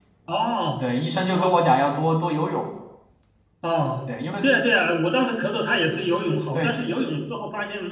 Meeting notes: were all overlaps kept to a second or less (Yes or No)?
Yes